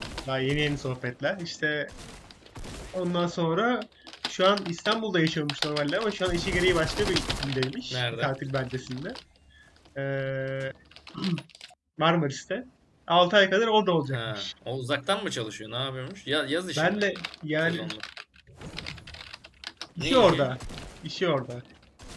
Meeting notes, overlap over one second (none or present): none